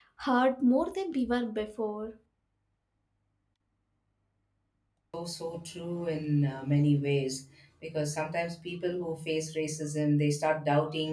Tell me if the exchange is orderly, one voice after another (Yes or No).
Yes